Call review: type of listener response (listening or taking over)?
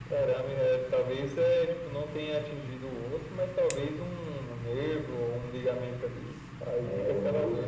taking over